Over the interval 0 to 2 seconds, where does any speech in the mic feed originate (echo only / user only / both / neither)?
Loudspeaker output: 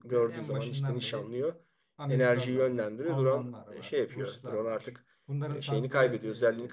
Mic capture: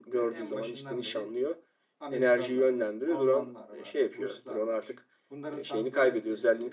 echo only